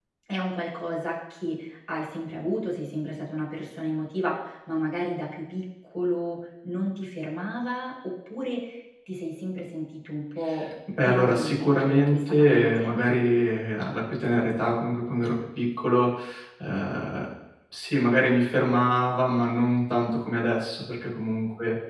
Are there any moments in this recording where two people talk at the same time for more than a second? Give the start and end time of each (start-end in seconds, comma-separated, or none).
11.0-13.0